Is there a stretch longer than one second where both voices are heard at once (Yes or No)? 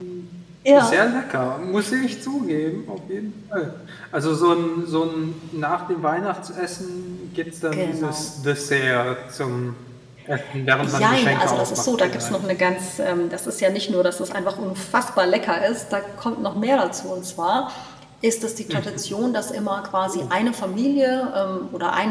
Yes